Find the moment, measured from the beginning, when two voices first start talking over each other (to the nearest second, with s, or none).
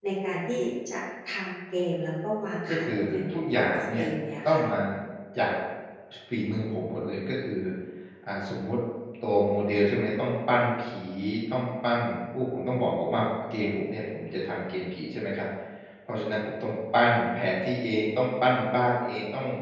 3 s